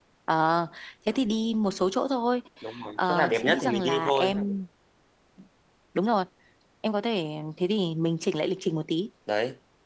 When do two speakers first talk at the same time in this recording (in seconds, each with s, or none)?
3.0 s